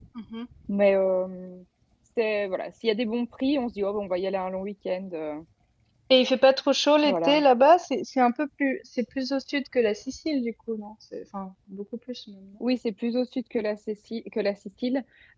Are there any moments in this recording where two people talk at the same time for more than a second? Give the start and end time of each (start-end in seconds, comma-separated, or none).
none